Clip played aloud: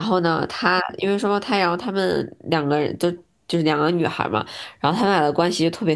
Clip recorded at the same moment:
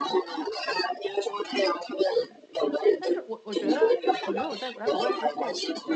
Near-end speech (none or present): present